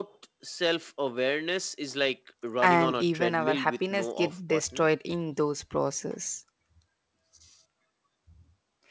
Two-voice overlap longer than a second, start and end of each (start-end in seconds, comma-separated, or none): 2.6-4.8